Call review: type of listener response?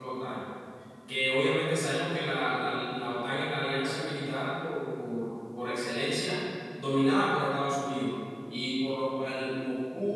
listening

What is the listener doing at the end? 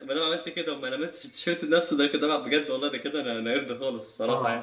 taking over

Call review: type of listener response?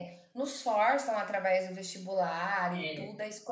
listening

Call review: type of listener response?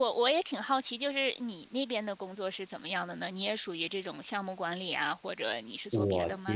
taking over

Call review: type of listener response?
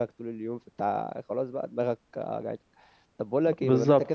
listening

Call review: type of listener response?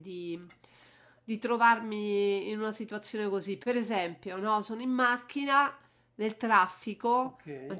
listening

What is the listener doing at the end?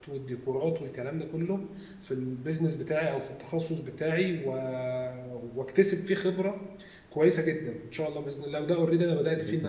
listening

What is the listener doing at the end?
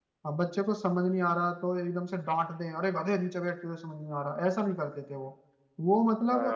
taking over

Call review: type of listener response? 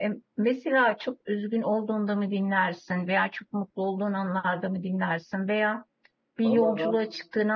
listening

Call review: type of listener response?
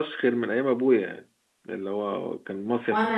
taking over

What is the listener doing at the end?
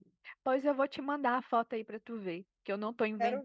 listening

